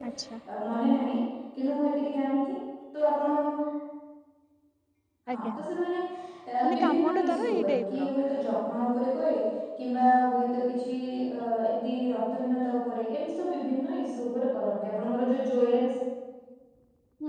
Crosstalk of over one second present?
Yes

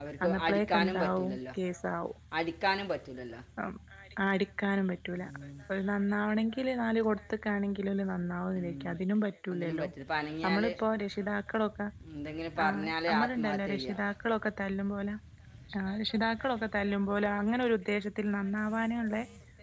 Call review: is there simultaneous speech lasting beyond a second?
Yes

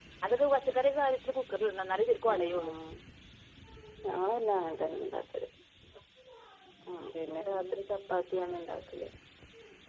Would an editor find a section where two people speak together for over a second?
No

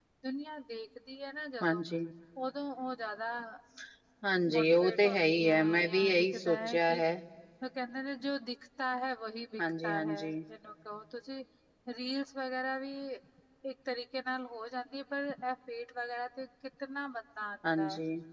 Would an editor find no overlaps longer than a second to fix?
No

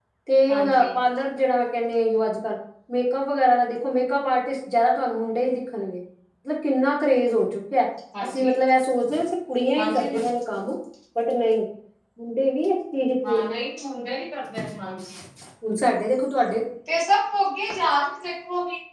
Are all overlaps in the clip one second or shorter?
Yes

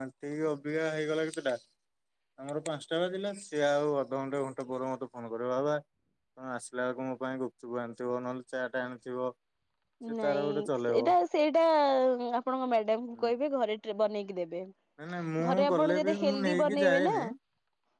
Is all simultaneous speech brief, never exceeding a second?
No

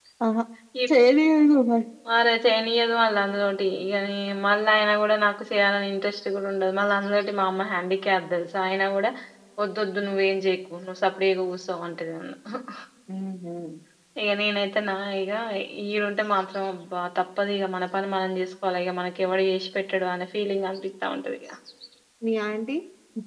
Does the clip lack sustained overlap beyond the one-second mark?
Yes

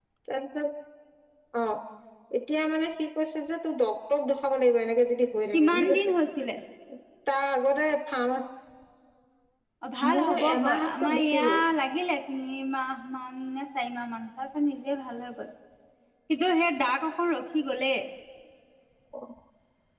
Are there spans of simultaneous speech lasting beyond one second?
Yes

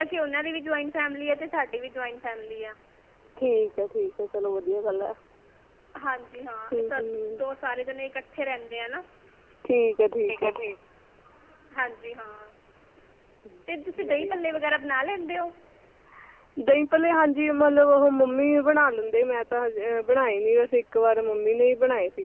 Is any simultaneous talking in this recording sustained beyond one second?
No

